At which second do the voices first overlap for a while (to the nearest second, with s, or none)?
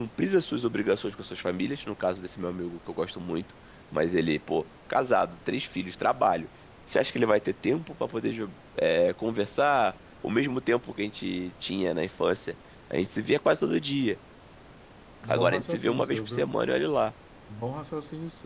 15 s